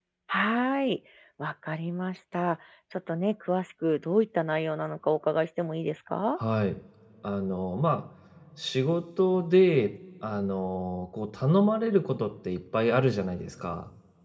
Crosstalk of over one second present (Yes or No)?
No